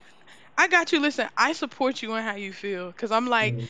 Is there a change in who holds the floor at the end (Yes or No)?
No